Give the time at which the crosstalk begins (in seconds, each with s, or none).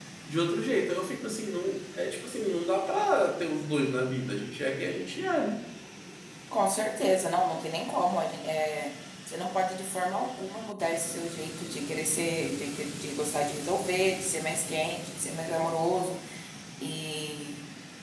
none